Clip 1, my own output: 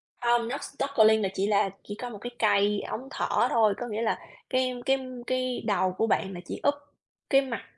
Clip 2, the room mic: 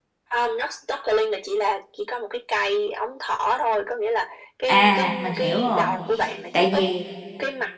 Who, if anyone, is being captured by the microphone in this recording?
both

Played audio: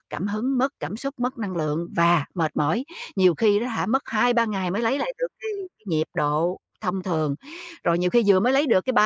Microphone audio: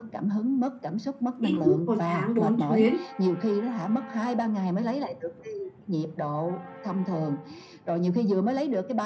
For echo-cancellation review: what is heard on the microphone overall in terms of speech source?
both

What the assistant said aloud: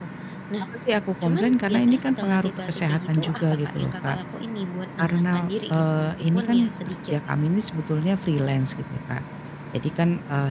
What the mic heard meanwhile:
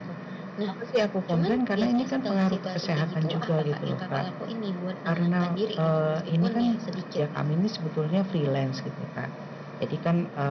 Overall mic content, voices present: echo only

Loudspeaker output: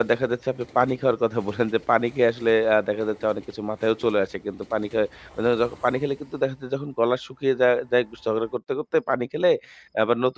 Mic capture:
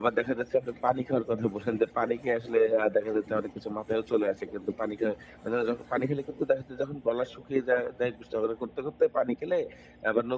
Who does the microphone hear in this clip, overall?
echo only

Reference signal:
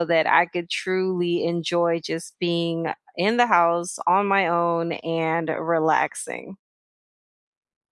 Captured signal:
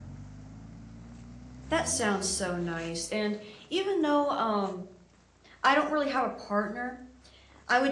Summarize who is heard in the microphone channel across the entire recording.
user only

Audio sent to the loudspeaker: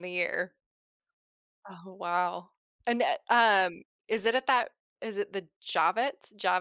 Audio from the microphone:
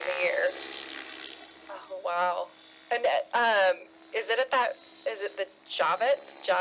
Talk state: echo only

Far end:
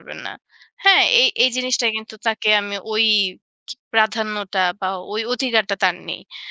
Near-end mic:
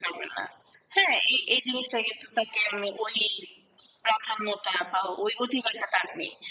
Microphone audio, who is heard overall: echo only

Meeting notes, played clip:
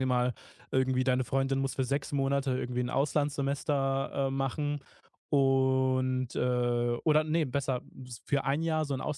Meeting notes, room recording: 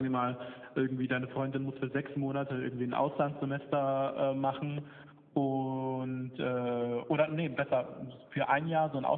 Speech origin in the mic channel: echo only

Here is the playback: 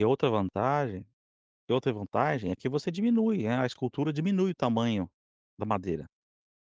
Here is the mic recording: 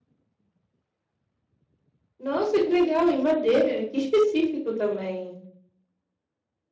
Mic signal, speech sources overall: user only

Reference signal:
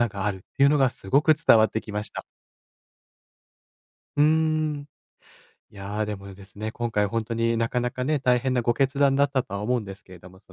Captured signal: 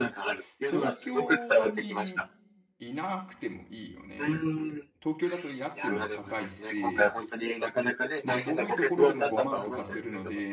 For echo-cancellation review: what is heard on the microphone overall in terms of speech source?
both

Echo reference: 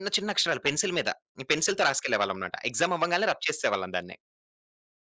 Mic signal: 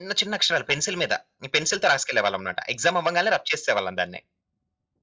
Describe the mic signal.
echo only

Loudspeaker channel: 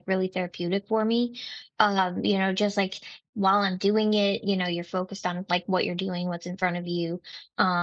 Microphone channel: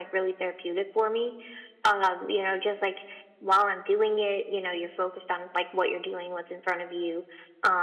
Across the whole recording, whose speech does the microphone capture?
echo only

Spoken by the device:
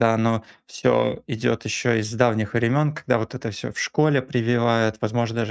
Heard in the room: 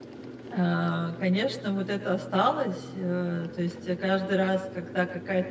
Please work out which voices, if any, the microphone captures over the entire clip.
user only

